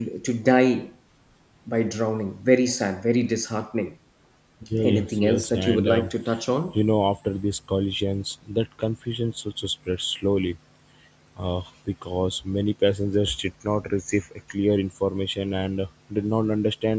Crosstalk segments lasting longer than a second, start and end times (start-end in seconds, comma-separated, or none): 4.8-6.1